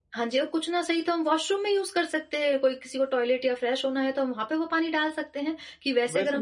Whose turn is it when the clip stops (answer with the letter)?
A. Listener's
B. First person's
A